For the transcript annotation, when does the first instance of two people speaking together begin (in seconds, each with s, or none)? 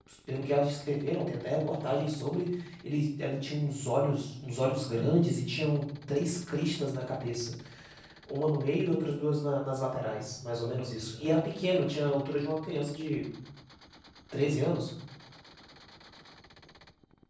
none